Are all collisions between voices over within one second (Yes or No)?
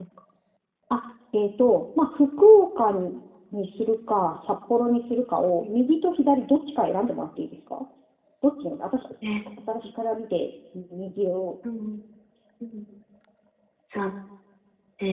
Yes